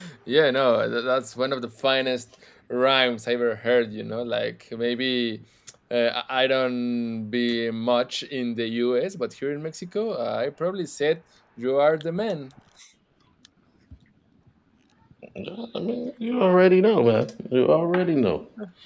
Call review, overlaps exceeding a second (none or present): none